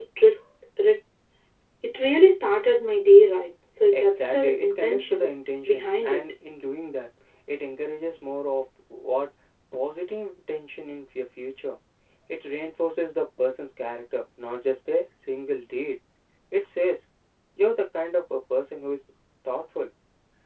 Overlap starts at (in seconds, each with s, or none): 3.9 s